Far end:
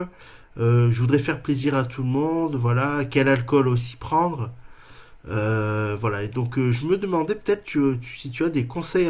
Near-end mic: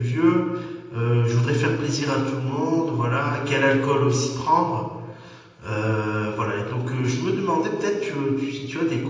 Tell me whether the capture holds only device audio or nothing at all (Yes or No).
Yes